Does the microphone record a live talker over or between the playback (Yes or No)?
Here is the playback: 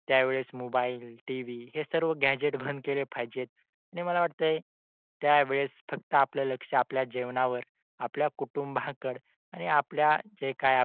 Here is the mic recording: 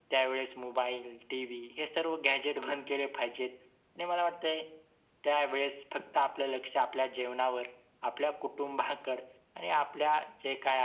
No